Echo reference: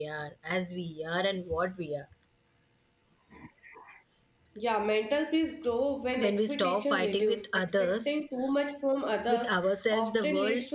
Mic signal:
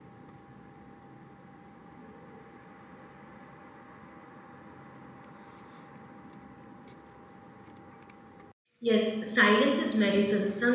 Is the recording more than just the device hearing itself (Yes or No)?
Yes